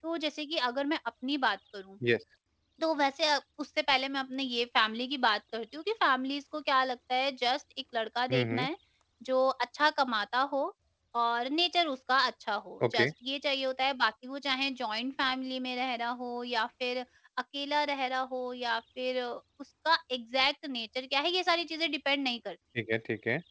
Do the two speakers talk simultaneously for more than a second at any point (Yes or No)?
No